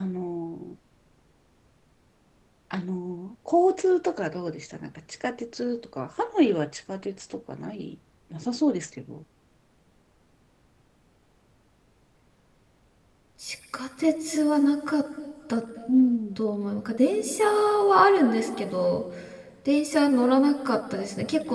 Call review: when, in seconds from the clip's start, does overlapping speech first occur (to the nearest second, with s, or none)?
none